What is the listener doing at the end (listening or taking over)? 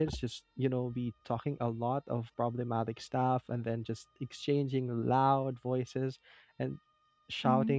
listening